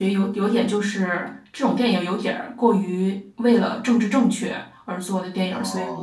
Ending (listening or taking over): listening